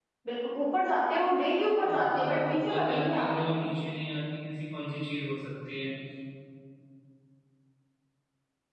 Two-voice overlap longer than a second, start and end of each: 1.8-3.6

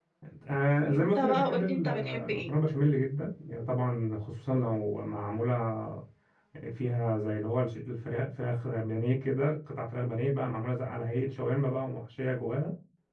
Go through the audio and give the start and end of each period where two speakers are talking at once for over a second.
0.9-2.5

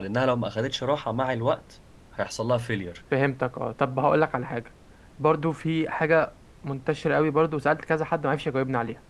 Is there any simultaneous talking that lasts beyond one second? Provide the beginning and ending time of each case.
none

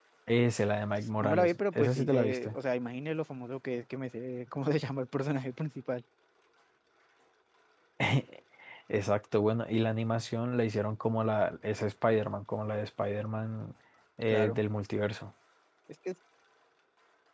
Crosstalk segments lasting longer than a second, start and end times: 1.2-2.6

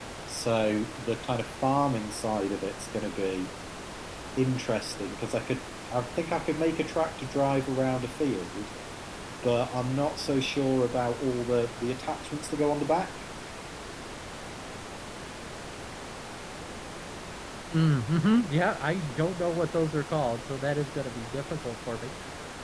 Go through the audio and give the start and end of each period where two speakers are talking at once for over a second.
none

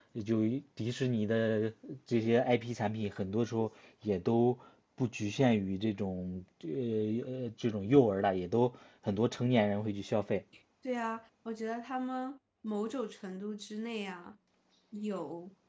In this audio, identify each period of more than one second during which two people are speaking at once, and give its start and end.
none

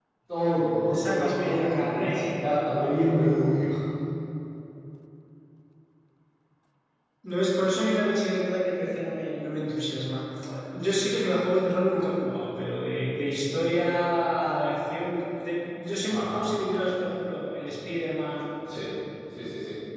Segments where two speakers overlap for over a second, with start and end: 0.9-2.5

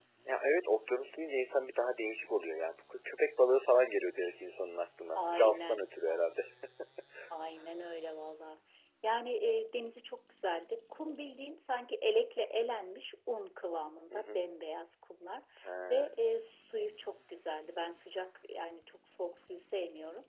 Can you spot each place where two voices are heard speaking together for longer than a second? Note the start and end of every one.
5.2-6.4

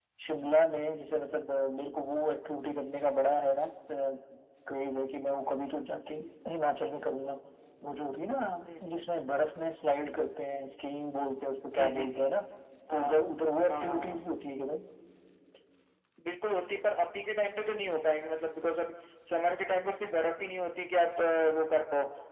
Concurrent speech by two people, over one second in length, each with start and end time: none

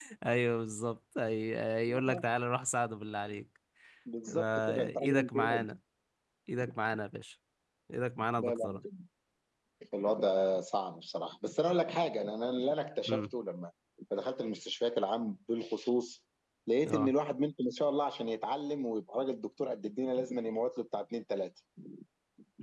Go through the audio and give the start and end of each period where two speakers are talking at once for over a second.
4.3-5.6

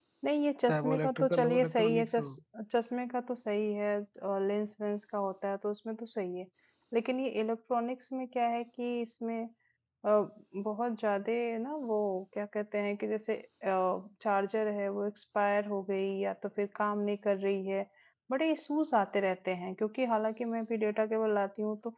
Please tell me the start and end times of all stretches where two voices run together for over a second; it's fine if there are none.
0.7-2.3

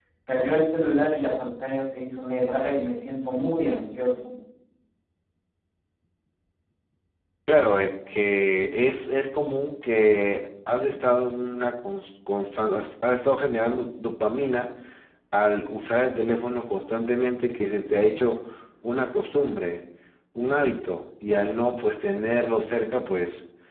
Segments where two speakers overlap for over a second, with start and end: none

